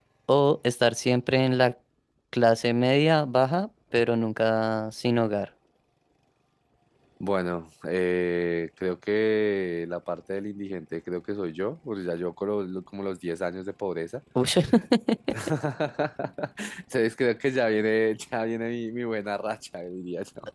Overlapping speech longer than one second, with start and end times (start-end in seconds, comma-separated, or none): none